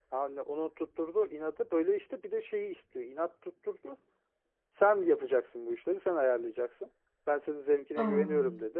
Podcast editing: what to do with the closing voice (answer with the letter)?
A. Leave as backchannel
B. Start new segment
A